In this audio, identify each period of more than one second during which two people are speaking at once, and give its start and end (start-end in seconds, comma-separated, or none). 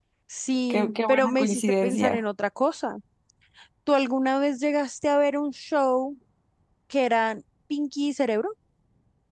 0.7-2.2